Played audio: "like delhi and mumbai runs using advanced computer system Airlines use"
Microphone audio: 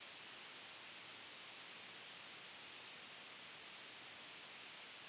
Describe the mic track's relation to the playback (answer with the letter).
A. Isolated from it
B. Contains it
A